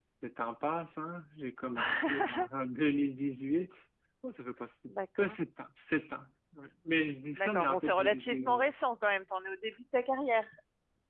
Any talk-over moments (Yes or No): Yes